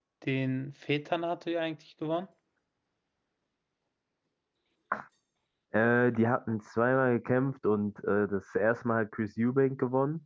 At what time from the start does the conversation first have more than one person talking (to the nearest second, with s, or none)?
none